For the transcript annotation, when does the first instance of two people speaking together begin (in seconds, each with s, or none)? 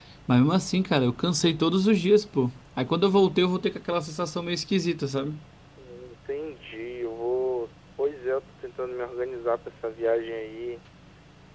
none